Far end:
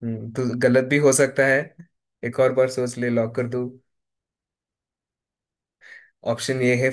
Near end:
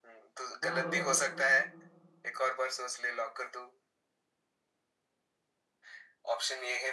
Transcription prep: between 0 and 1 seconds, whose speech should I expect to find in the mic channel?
both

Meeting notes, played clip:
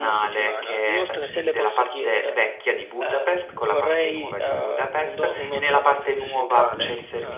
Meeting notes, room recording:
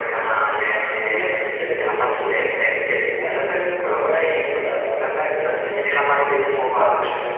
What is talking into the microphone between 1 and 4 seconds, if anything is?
echo only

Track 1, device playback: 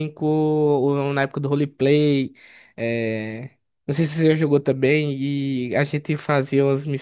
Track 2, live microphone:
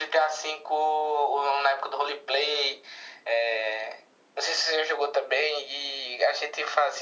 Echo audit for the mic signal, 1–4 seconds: echo only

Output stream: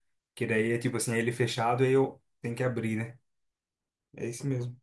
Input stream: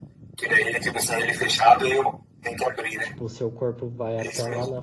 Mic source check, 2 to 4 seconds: both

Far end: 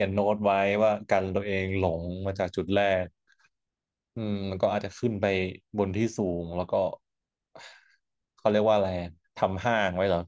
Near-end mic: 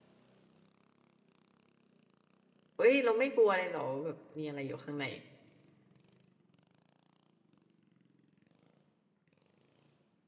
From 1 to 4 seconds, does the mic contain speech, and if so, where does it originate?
user only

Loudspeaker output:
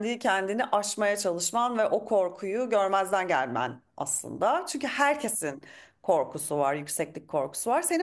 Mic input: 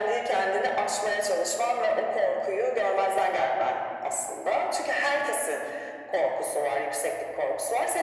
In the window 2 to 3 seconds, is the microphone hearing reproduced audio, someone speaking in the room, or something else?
echo only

